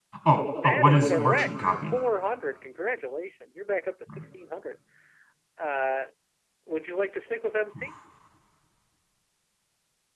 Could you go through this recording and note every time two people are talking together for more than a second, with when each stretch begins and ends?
0.6-2.0

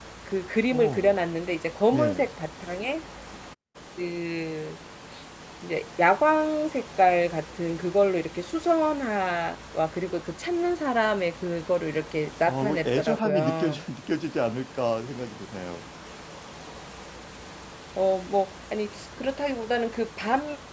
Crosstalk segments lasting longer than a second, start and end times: 12.5-13.8

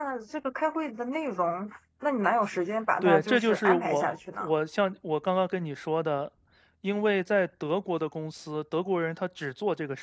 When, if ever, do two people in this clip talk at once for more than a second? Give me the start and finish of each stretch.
3.0-4.5

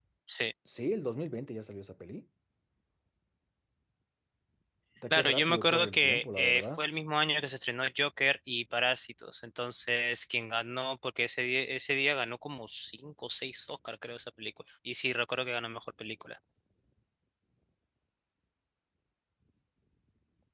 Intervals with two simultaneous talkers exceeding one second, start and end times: 5.1-6.8

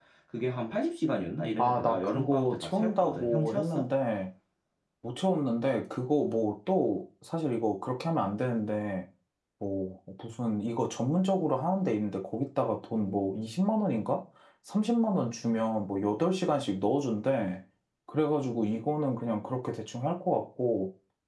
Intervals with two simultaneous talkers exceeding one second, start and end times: 1.6-3.8

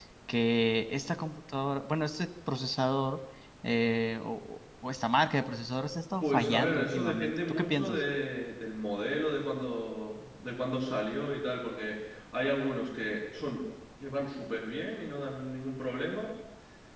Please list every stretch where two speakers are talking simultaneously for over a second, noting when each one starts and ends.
6.2-8.0

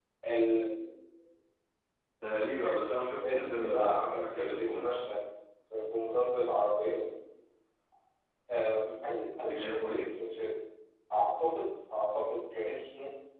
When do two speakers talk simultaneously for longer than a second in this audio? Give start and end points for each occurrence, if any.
2.7-5.0

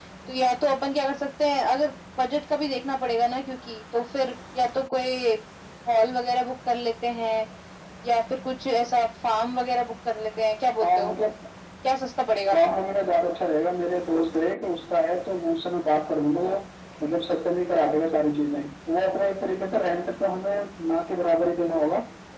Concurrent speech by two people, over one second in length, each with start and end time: none

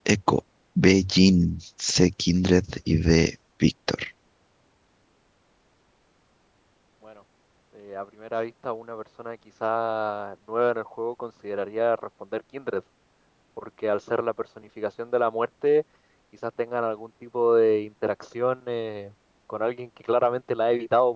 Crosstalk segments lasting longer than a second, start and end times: none

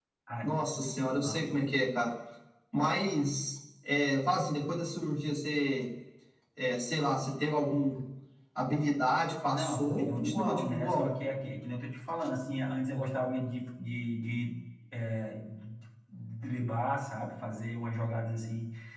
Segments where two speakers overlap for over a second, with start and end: 9.5-11.1

